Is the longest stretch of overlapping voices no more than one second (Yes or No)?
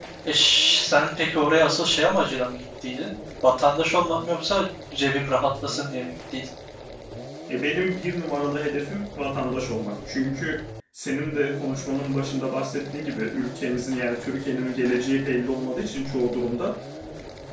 Yes